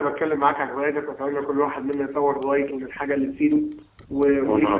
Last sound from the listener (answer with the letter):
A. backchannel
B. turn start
A